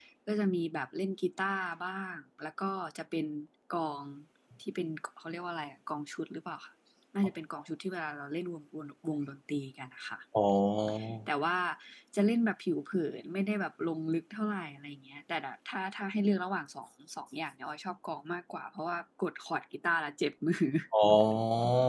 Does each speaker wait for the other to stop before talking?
Yes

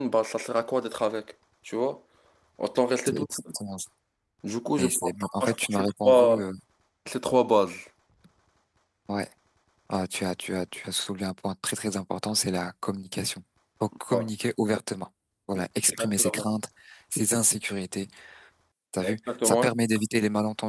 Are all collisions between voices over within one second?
No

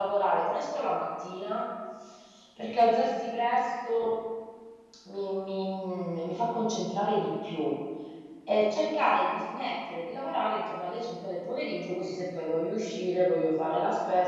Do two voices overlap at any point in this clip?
No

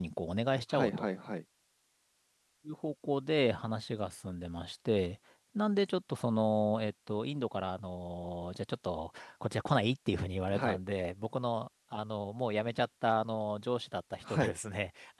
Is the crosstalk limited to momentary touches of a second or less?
Yes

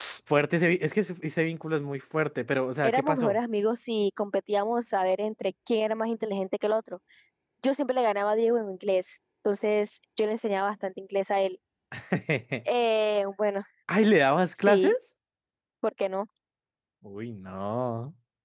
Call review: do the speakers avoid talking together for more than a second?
Yes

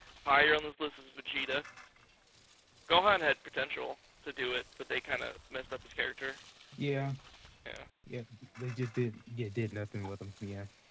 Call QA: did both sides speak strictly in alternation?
Yes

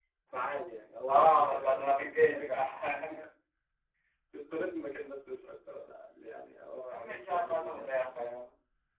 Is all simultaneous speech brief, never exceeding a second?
No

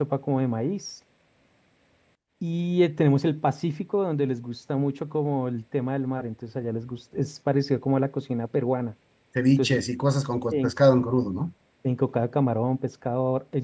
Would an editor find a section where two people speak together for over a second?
No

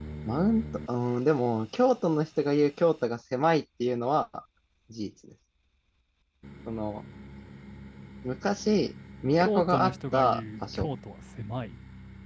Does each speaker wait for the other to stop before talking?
No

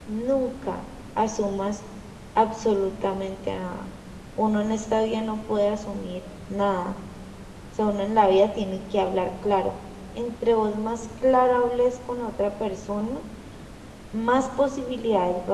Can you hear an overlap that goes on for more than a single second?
No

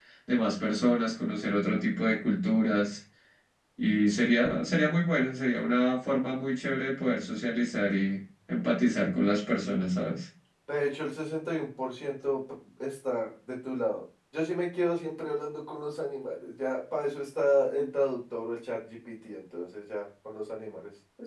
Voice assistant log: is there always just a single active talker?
Yes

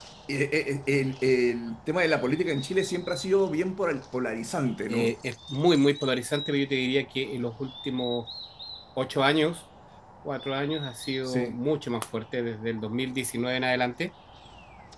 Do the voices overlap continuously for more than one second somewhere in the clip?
No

